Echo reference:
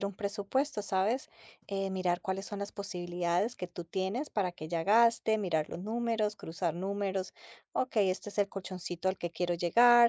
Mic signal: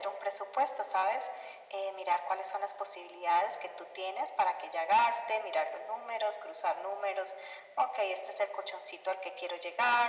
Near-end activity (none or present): none